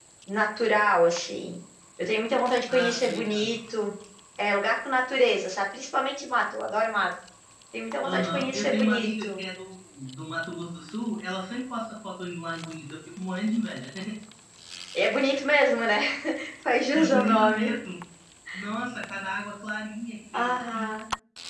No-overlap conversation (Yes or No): No